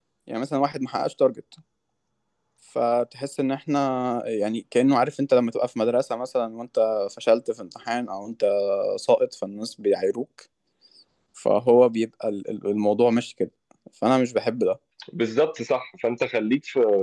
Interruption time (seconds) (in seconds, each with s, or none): none